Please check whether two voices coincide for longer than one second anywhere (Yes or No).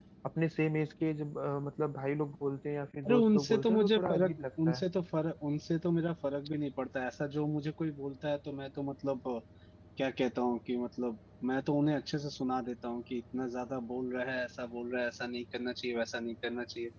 Yes